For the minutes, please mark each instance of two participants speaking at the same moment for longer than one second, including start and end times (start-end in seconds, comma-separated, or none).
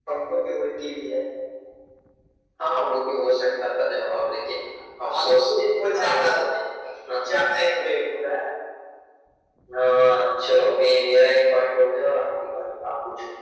5.0-6.3